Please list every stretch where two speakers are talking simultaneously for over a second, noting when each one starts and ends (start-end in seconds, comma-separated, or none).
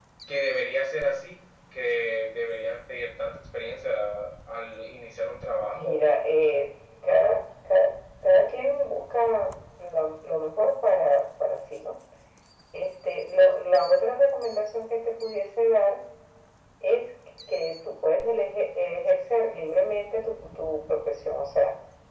none